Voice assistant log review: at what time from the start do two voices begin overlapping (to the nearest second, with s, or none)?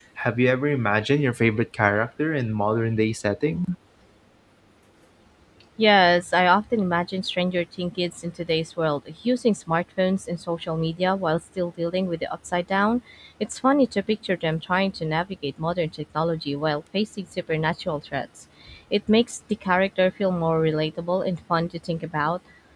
none